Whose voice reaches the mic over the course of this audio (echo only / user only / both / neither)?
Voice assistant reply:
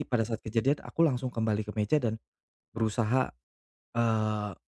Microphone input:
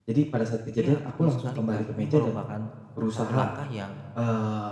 both